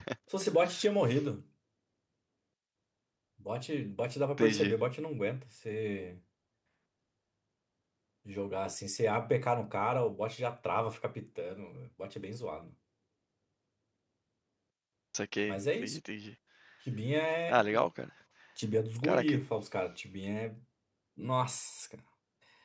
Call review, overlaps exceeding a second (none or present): none